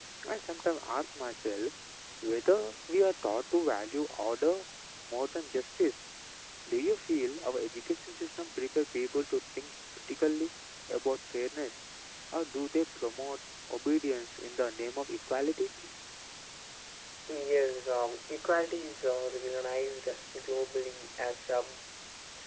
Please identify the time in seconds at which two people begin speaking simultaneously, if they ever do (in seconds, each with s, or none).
none